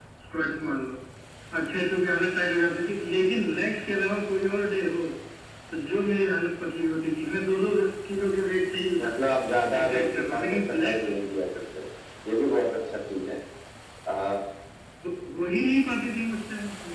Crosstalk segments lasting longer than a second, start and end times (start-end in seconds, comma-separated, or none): 9.8-11.1